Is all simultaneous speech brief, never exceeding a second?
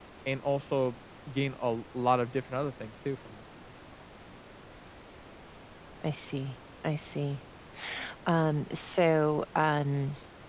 Yes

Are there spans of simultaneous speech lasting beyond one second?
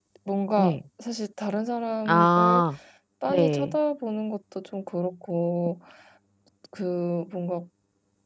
No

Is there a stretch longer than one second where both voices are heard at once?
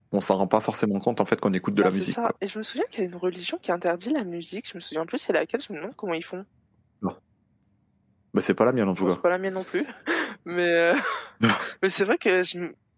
No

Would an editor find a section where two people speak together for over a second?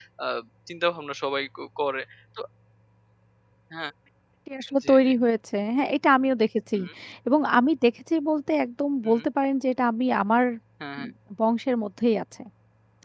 No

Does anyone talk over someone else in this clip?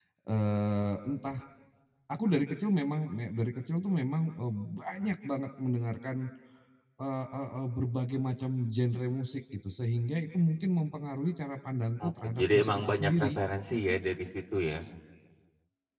Yes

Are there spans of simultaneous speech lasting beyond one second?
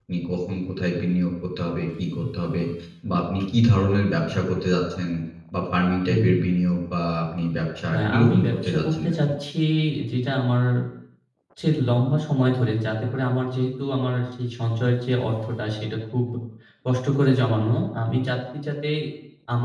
Yes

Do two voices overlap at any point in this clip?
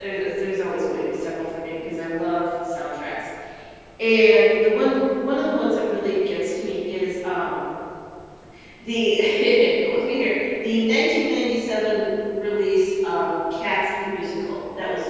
No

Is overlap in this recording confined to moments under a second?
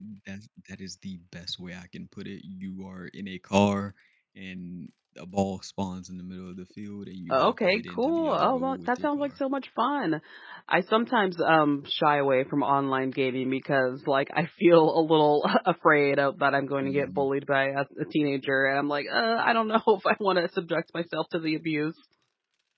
No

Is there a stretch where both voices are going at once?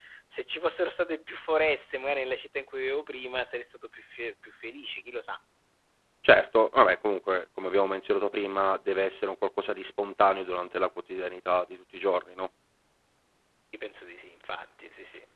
No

